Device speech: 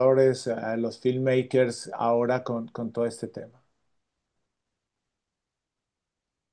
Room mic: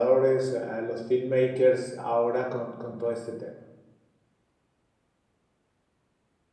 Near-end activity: none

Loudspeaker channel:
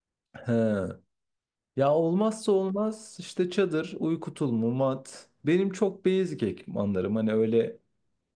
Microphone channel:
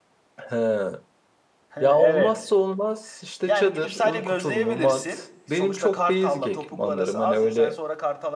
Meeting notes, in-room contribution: present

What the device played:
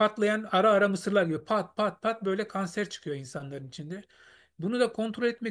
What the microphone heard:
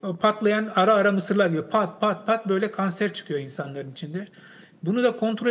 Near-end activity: none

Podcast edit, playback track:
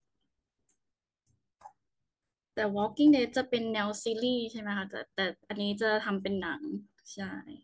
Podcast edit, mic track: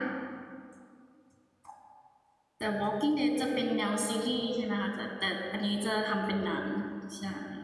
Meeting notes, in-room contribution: none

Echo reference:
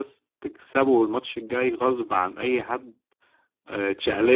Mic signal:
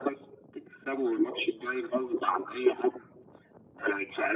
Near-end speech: none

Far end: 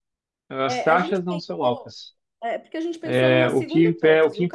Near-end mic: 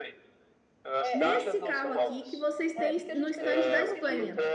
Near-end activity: present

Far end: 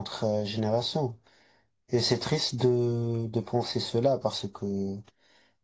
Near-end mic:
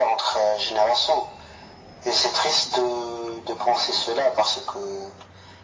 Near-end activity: none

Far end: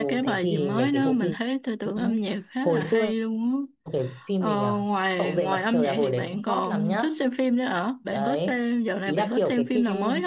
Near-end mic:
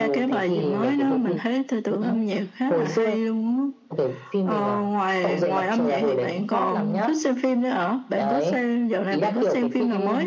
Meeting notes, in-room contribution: none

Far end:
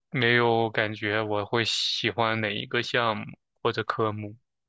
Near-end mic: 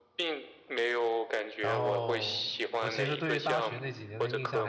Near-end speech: present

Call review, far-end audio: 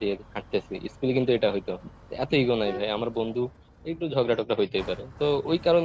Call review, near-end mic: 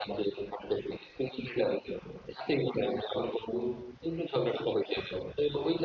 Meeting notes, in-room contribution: none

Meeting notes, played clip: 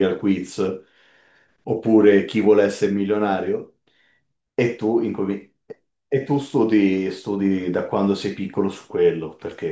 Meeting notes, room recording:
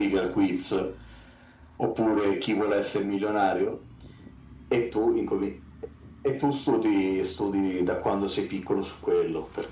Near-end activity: none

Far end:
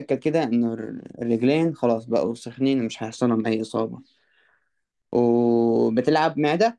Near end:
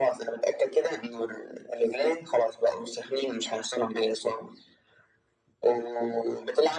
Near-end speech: none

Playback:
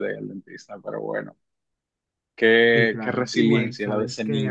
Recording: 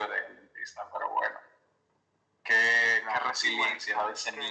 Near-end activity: none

